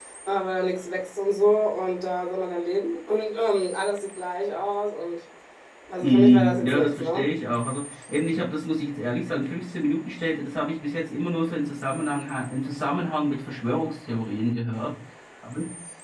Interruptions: present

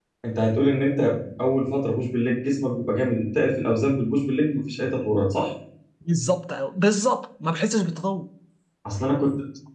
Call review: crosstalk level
none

